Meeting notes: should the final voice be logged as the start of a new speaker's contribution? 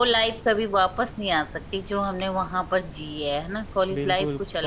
Yes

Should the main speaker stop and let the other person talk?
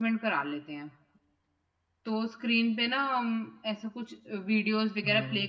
No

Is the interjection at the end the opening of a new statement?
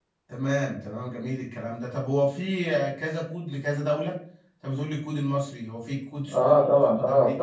Yes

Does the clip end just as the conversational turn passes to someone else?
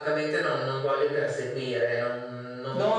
Yes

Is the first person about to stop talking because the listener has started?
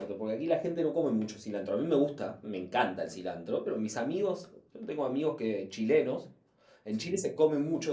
No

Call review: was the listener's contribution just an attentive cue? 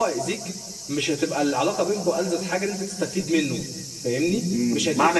No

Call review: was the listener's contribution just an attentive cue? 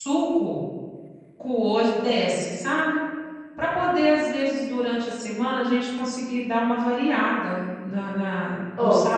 No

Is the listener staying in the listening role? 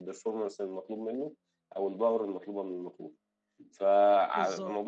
Yes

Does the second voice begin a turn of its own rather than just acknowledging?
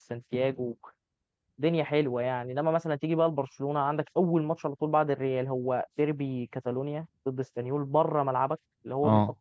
No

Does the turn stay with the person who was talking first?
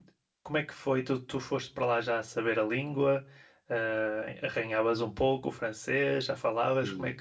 No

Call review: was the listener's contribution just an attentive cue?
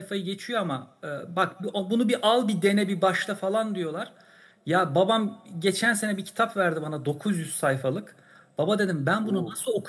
Yes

